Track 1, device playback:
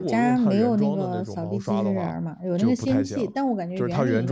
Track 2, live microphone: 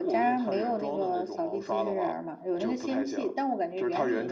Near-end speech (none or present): none